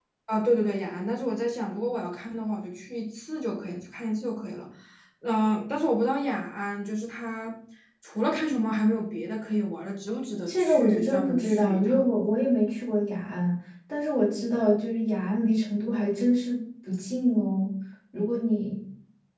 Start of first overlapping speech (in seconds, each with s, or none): 10.5 s